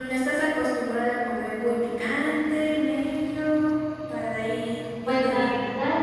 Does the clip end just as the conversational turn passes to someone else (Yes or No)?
Yes